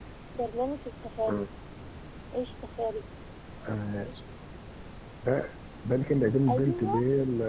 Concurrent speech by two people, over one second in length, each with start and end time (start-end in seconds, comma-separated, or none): none